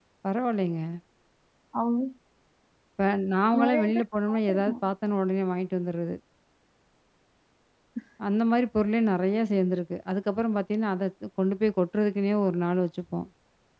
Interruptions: present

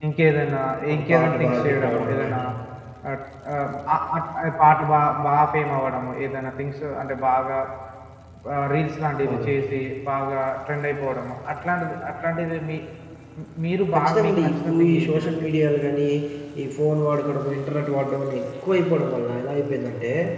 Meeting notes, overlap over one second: present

